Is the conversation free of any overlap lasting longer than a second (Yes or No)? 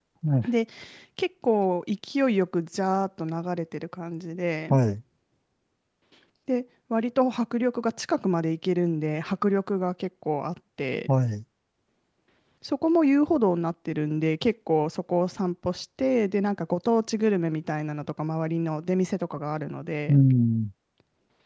Yes